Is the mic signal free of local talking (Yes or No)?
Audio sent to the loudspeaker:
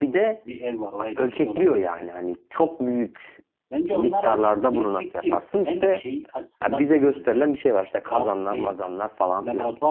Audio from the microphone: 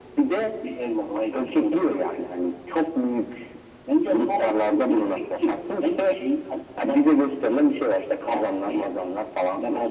Yes